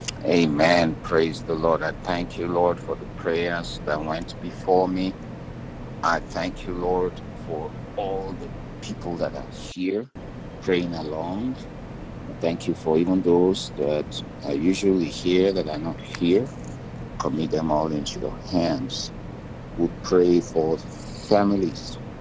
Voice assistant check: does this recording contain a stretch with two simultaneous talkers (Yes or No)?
No